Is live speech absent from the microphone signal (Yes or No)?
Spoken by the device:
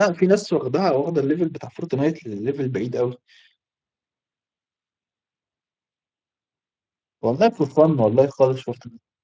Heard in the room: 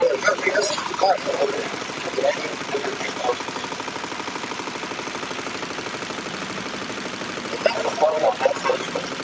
Yes